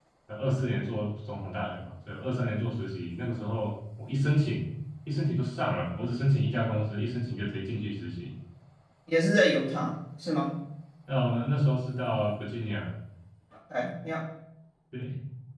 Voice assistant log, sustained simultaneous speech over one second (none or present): none